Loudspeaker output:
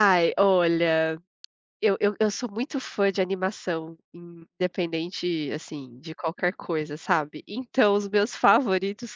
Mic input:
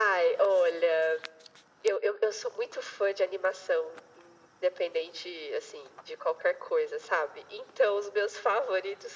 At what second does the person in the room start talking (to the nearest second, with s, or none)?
none